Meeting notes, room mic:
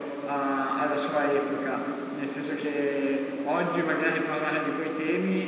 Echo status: present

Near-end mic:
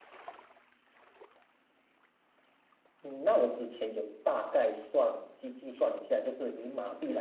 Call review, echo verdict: none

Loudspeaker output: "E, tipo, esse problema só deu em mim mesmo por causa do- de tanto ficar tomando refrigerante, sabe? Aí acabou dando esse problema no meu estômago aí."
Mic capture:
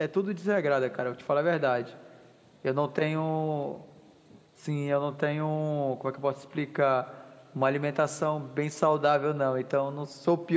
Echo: none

